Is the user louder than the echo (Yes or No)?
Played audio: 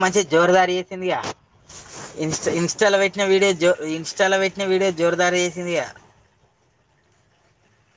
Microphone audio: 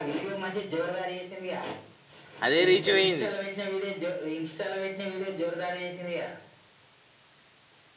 Yes